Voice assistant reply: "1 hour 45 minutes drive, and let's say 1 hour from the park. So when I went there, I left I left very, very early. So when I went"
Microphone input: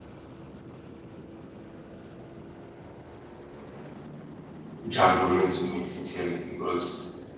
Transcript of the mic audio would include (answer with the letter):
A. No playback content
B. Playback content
A